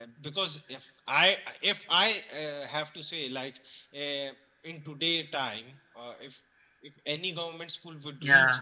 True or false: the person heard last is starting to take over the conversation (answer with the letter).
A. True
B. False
B